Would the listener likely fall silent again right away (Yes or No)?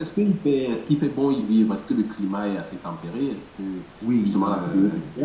No